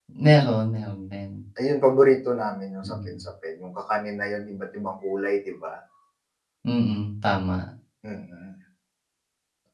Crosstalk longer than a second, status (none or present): none